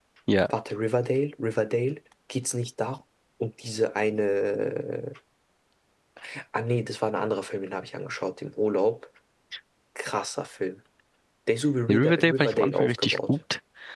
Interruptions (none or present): present